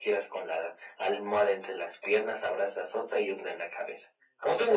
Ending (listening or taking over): taking over